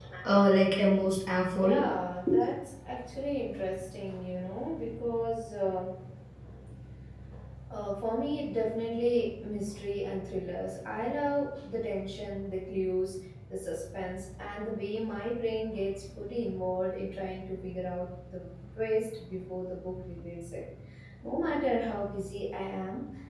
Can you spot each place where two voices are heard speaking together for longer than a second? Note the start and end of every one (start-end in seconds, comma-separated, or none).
none